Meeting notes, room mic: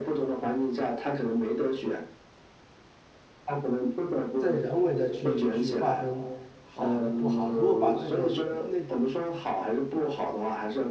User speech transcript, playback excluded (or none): 在人为的去去划分好还是不好。如果把这个内